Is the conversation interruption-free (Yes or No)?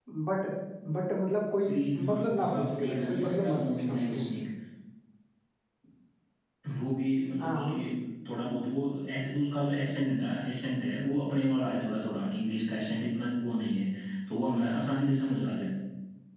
No